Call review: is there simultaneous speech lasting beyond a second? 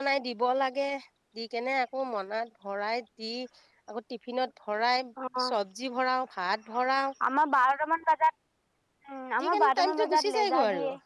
Yes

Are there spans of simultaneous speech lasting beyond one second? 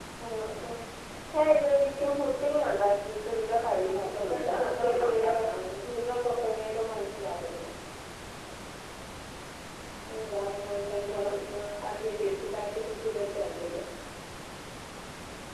Yes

